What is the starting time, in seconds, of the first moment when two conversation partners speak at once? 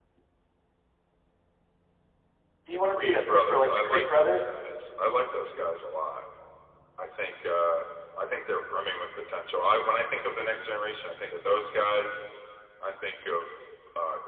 2.7 s

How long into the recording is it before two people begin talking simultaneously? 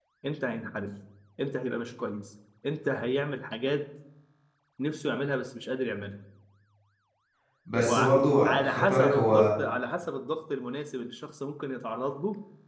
7.9 s

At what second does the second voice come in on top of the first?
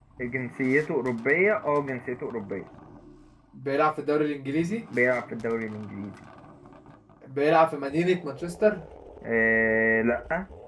none

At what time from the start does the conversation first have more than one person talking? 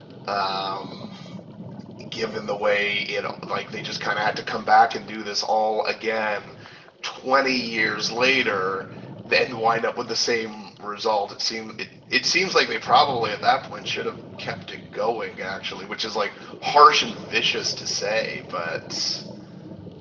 none

